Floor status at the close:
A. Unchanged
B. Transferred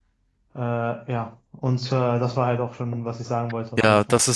B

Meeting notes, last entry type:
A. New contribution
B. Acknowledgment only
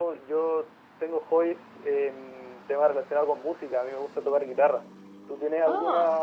B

